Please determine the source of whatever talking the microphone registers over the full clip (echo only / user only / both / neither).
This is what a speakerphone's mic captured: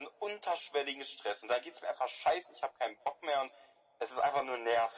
echo only